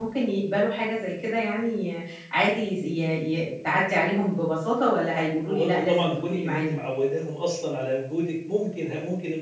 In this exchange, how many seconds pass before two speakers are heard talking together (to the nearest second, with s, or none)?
5 s